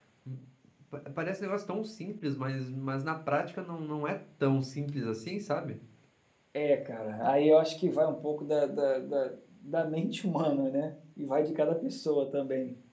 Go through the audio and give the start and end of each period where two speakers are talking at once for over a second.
none

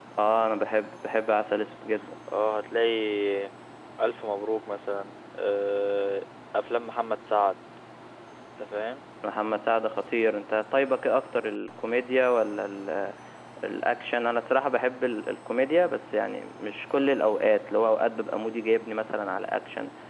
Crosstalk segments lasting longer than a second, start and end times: none

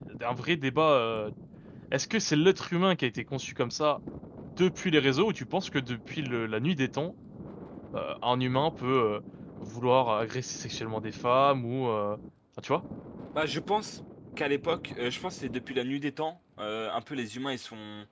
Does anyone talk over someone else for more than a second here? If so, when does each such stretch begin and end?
none

